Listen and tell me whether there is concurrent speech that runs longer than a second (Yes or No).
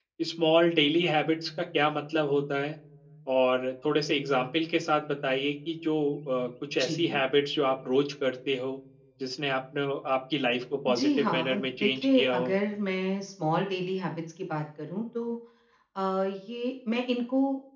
Yes